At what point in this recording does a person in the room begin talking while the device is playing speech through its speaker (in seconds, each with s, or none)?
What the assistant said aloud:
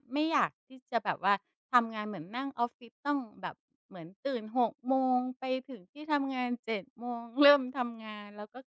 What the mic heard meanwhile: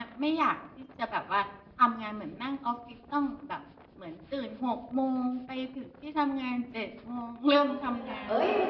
7.6 s